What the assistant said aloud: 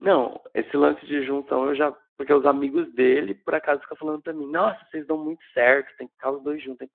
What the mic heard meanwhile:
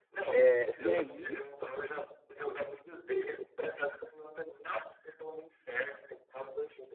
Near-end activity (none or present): present